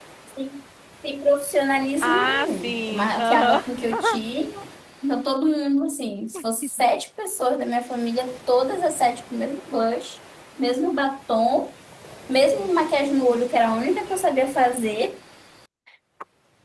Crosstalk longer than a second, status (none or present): present